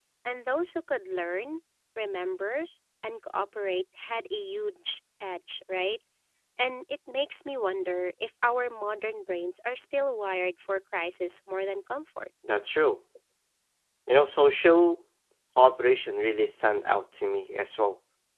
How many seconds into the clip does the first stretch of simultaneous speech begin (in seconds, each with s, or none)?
none